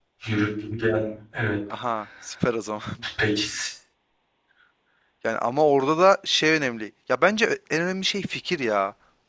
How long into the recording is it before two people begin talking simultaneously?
none

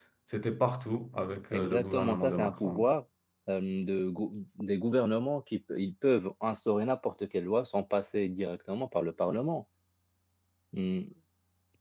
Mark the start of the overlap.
1.5 s

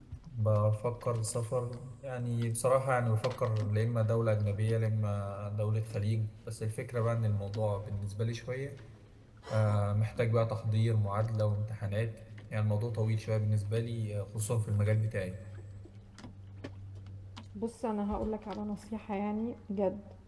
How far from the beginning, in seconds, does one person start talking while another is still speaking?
none

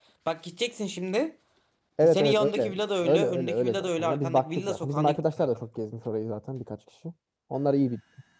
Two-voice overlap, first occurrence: 2.0 s

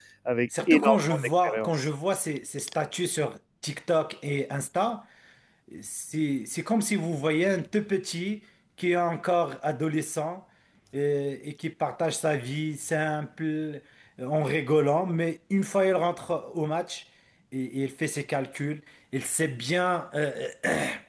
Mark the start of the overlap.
0.7 s

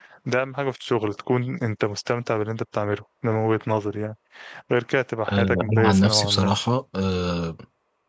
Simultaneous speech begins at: 5.3 s

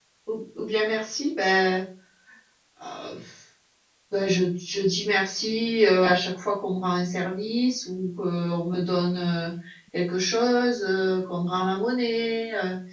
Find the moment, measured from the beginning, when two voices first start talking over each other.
none

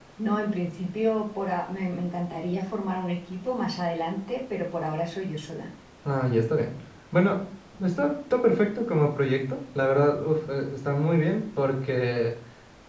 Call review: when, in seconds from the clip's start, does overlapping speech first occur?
none

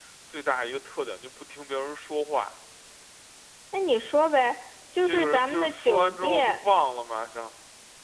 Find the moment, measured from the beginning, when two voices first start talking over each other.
5.0 s

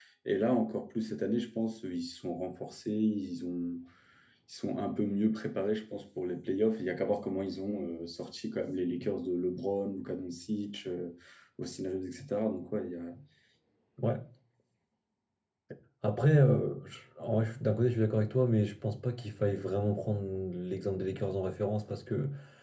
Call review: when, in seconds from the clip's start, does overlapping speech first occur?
none

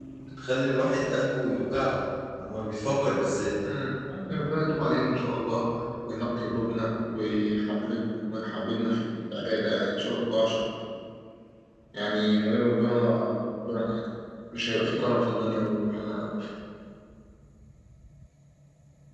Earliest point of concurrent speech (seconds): none

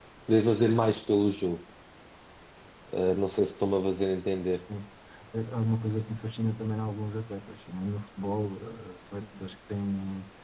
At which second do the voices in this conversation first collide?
none

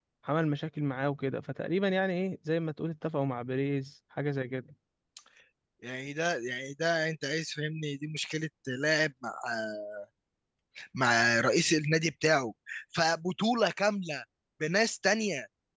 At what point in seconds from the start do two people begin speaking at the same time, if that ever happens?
none

